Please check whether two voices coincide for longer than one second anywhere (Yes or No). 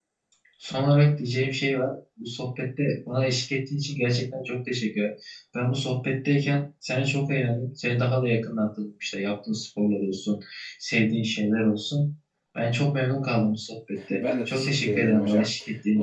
Yes